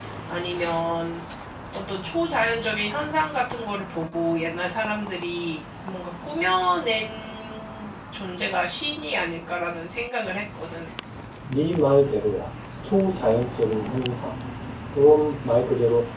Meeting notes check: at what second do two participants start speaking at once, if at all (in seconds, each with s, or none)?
none